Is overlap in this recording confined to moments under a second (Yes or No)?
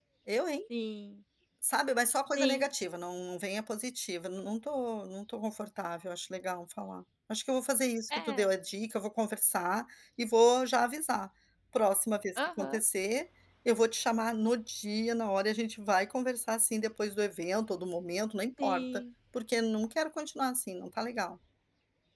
Yes